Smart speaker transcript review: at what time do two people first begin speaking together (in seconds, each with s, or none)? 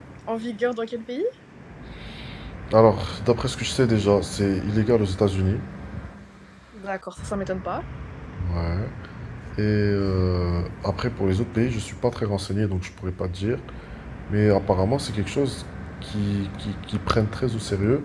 none